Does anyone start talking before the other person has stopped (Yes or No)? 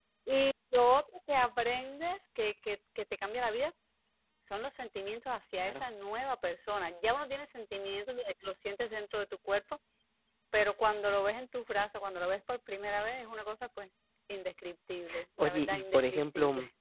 Yes